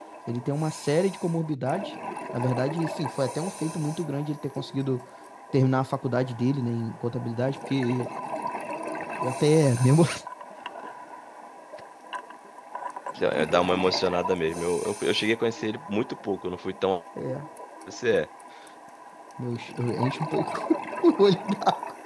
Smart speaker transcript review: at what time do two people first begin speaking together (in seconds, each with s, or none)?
none